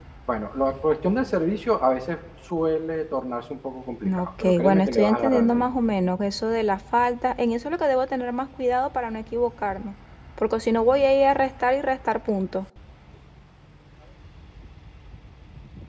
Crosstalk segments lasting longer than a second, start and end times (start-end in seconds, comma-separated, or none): 4.2-5.6